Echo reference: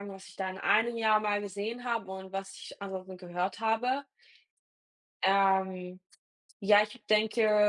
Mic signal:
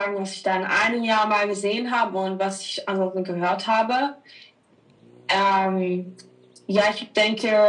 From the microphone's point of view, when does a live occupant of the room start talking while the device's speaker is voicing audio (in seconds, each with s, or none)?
none